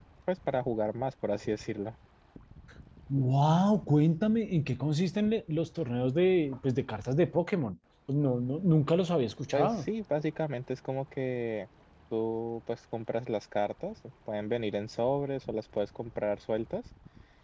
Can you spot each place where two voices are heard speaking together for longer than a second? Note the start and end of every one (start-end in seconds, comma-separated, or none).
none